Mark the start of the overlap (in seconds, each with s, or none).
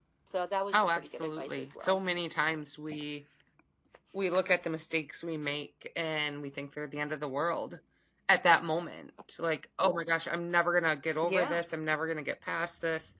0.7 s